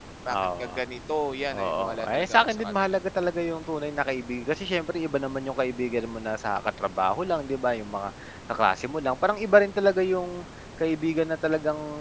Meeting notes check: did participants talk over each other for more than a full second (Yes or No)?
Yes